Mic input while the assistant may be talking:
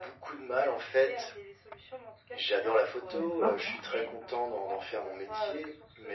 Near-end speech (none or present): present